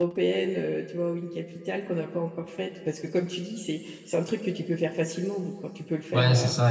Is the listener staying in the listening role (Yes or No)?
No